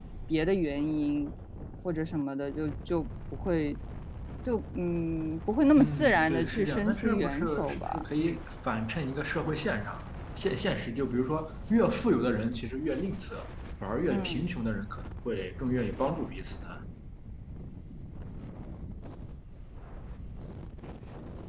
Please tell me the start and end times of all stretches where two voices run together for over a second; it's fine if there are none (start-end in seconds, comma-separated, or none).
5.8-8.0